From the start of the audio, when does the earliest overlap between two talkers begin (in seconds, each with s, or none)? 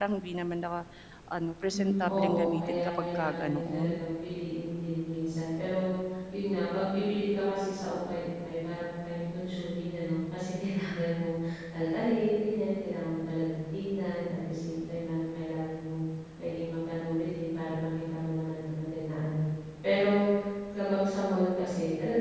1.7 s